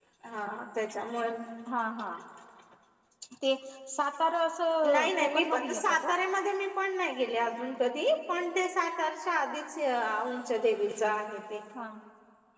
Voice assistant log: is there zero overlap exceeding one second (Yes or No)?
No